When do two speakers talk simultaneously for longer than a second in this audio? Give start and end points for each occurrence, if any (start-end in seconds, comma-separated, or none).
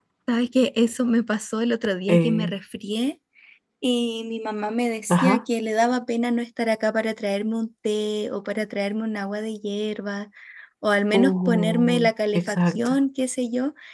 11.1-13.0